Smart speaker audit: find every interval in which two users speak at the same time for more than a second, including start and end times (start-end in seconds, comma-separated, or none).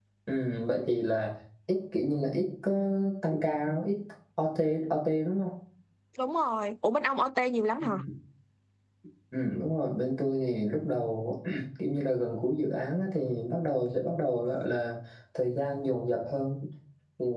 none